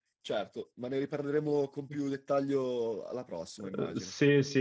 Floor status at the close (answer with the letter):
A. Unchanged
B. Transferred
B